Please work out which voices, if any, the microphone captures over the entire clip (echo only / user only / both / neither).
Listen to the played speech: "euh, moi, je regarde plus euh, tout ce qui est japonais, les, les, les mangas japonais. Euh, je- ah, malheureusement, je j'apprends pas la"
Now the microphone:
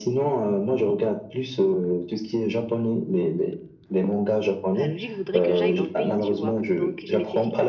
both